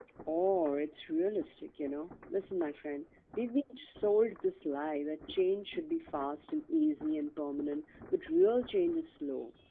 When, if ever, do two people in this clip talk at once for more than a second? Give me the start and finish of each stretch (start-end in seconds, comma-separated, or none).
none